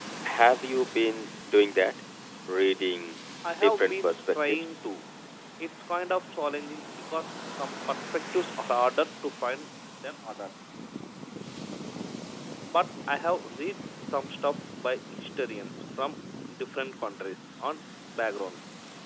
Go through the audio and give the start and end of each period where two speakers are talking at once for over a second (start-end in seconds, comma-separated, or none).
3.6-4.8